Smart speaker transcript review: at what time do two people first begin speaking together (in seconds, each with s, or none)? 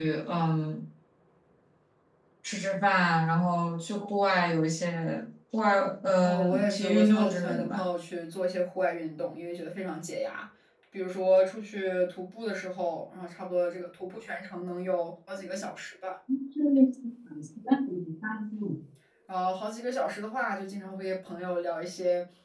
6.2 s